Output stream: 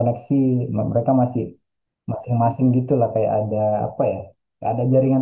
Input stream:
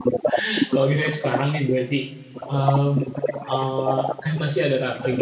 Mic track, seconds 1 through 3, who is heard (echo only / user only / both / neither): both